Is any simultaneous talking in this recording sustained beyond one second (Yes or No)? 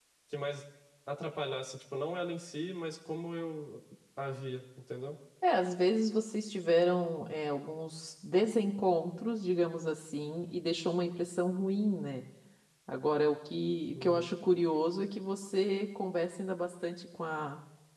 No